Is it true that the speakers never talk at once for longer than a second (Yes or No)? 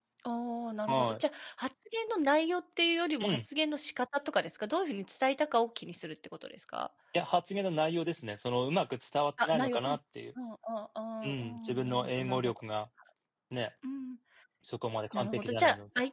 No